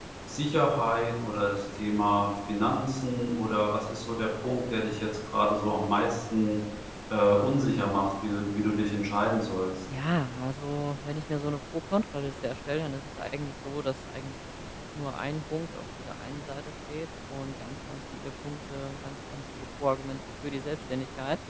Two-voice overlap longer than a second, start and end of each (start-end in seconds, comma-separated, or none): none